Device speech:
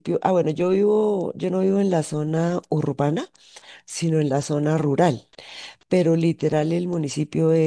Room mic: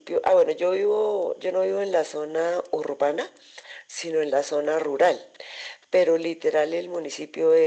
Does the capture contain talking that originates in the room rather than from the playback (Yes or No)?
No